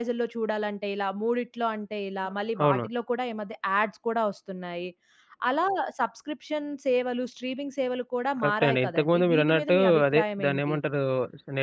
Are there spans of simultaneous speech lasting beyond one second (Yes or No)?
Yes